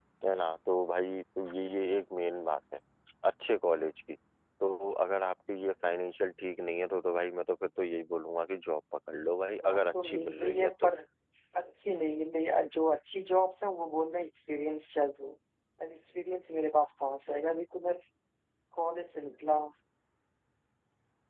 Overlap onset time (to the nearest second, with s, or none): 10 s